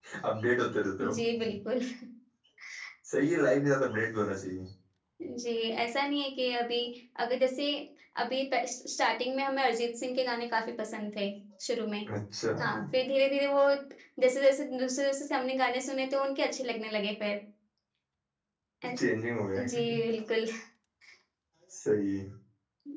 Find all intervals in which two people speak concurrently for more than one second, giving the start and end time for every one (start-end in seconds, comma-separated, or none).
none